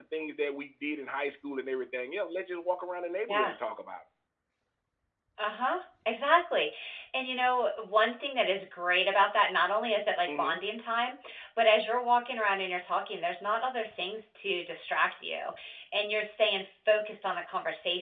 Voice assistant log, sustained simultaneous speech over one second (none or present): none